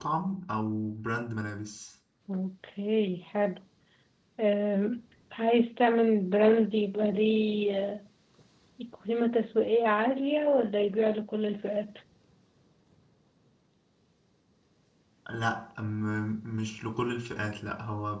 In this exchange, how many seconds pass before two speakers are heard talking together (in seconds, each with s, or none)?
none